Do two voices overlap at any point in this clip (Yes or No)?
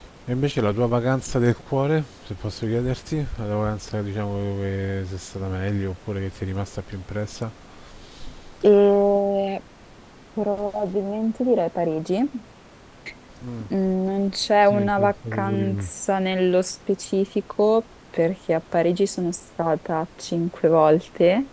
Yes